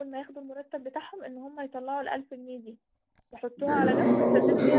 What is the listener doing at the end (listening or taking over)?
taking over